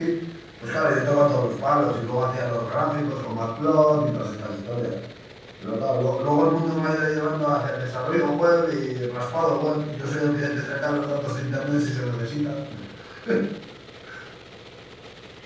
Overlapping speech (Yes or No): No